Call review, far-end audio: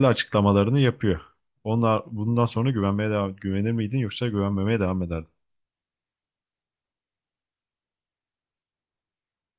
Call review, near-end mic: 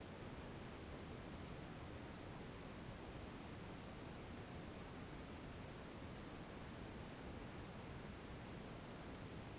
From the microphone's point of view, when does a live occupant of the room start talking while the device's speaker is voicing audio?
none

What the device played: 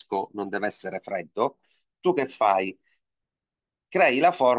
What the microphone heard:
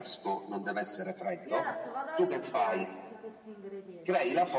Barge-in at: 1.4 s

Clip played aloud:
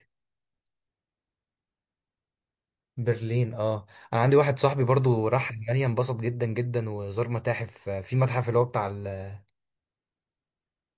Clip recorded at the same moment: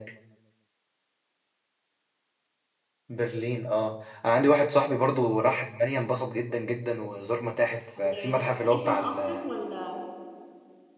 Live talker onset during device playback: 8.0 s

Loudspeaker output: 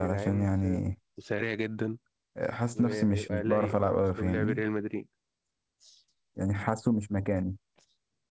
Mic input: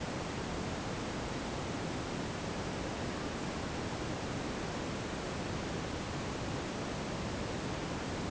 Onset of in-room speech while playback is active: none

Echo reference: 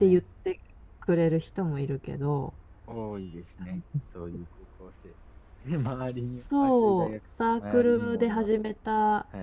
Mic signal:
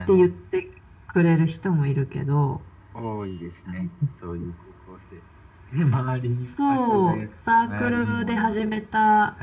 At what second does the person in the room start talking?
none

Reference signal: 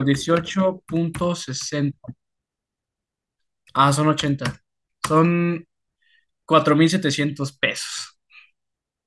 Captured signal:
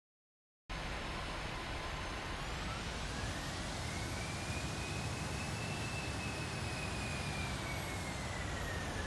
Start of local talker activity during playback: none

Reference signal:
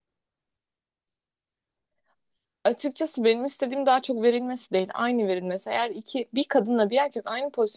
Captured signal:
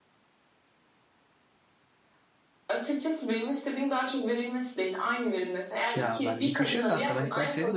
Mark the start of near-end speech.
5.9 s

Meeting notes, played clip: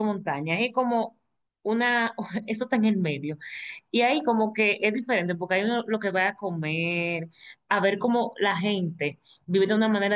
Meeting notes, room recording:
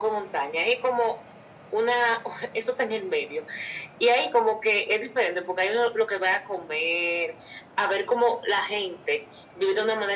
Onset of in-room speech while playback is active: none

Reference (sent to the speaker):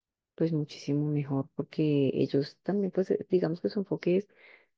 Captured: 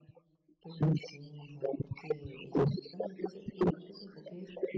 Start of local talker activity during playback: none

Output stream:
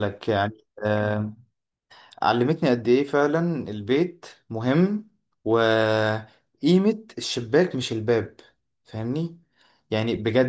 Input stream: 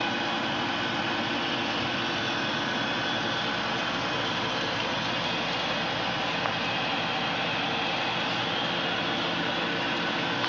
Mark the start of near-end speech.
none

